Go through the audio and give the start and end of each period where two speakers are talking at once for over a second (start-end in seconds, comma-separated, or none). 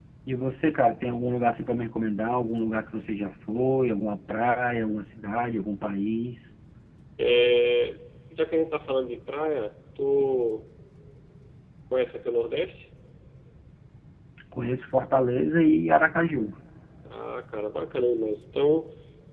none